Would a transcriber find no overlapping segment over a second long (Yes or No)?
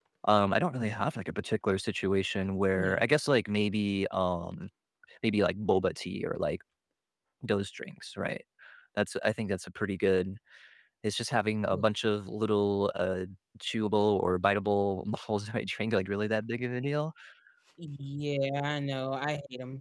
Yes